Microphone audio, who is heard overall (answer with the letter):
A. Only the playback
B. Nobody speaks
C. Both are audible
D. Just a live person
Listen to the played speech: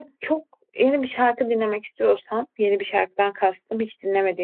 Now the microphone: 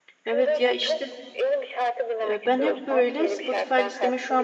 C